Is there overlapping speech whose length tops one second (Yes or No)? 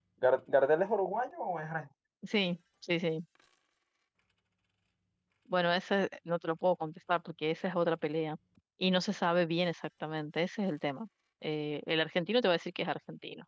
No